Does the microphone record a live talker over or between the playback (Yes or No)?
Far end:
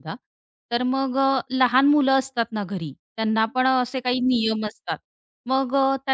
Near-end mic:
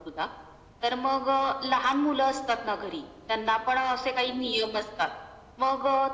No